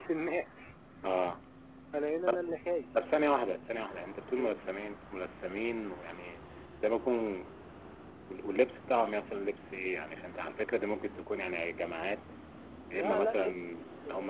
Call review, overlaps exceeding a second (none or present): present